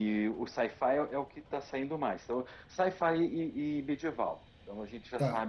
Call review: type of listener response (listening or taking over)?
taking over